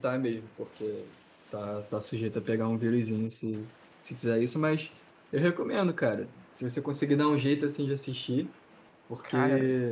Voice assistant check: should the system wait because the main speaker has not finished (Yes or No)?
Yes